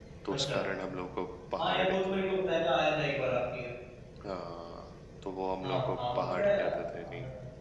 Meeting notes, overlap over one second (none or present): present